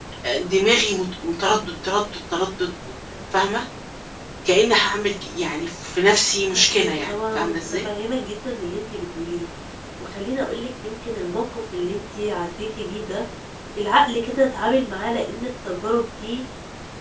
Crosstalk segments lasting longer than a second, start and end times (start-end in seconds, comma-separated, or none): 6.5-7.9